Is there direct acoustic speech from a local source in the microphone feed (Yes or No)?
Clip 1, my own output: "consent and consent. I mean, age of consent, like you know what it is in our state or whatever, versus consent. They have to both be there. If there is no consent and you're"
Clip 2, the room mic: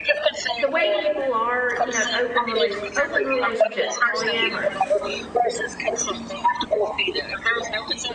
Yes